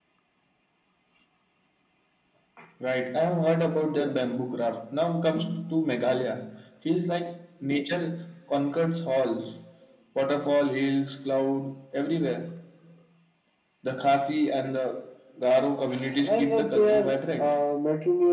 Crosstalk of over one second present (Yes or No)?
Yes